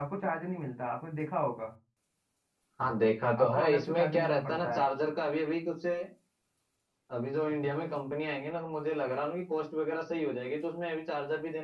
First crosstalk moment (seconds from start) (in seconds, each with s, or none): 3.4 s